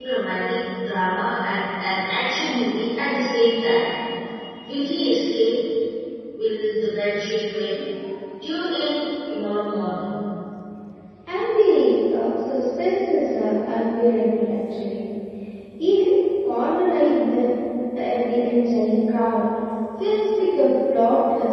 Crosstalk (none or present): none